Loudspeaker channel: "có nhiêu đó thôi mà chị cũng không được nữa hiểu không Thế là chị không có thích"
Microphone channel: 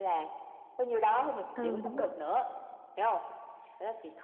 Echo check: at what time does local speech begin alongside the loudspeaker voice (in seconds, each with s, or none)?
1.5 s